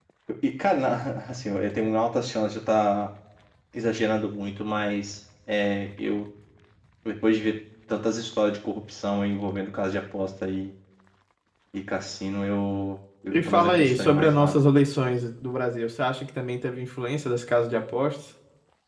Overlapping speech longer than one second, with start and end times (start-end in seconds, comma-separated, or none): 13.3-14.6